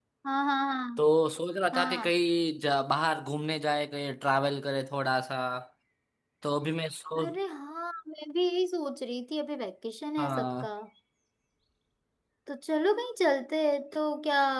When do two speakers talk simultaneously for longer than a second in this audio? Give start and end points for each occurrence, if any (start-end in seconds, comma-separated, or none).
none